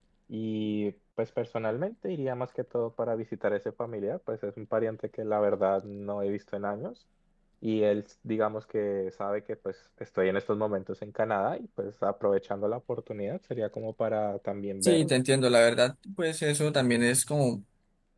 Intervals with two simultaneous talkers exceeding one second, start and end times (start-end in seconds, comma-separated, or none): none